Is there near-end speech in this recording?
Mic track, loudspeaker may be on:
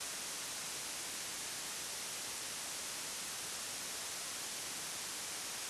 No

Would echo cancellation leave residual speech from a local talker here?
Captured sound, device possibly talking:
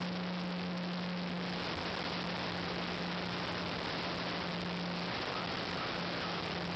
No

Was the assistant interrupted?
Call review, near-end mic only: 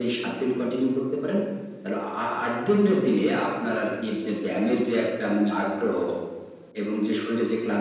No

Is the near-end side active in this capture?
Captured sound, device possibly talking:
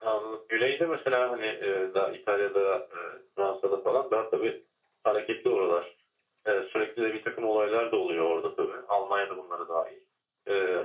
No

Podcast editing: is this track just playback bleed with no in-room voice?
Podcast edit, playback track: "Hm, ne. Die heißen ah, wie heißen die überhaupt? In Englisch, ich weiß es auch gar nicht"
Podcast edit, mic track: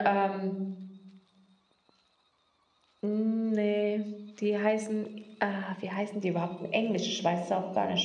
Yes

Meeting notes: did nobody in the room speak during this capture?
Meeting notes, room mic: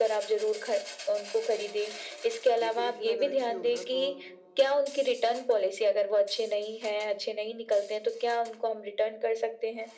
No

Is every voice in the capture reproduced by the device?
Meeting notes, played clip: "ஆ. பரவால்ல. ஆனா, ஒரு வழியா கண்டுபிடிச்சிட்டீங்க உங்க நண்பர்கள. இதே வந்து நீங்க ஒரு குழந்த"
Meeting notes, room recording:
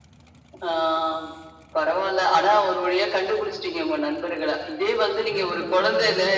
No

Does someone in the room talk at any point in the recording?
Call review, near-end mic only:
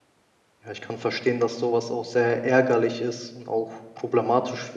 Yes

